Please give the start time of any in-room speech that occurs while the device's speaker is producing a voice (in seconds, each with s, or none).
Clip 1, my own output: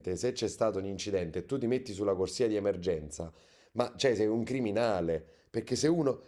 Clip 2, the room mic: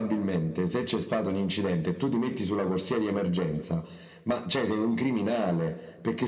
none